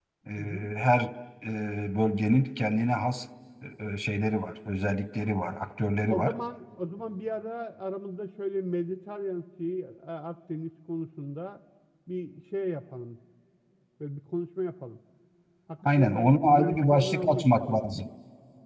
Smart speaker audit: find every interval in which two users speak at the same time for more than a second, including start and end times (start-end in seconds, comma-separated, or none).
15.8-17.9